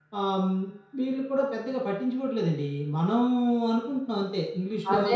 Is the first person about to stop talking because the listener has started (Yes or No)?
Yes